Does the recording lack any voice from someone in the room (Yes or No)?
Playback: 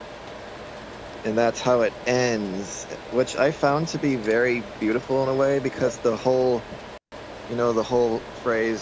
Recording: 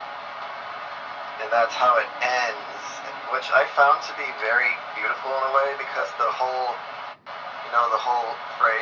Yes